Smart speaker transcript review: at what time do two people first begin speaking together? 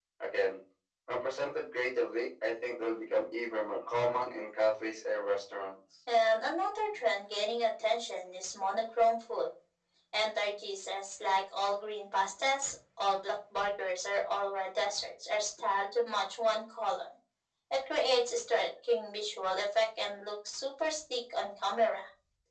none

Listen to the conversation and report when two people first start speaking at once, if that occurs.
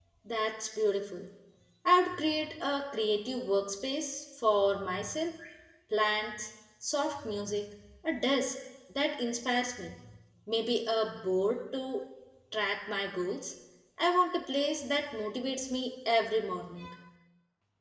none

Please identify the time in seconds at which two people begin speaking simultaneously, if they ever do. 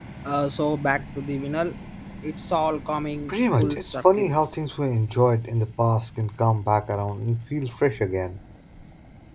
3.3 s

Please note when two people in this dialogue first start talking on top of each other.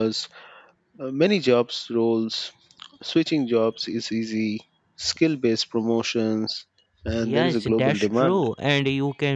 7.2 s

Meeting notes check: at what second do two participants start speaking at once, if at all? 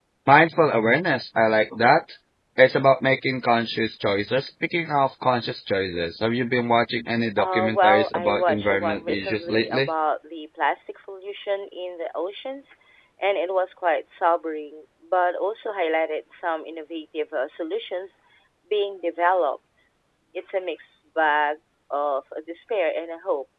7.4 s

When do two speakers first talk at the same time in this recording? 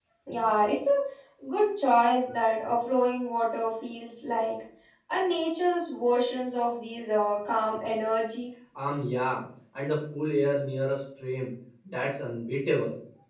none

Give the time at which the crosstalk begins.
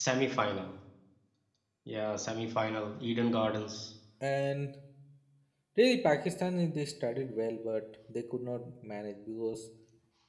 none

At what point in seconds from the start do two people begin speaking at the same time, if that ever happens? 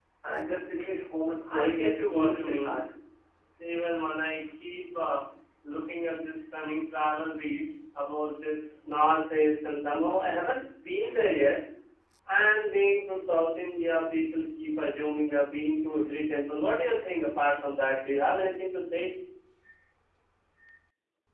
1.6 s

